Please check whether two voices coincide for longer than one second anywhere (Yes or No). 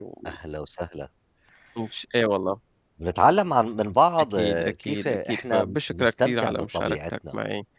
Yes